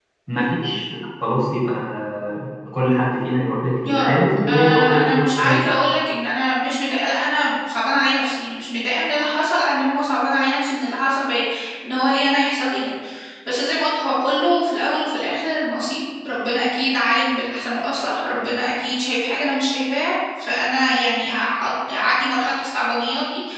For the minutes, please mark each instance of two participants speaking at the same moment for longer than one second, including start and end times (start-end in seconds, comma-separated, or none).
3.8-5.8